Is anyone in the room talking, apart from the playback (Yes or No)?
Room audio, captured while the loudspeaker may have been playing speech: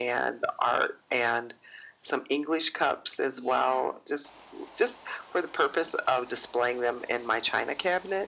Yes